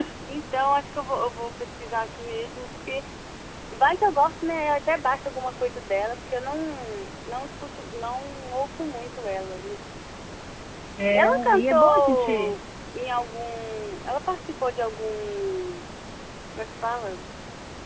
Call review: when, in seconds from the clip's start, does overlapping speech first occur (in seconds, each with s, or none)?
11.1 s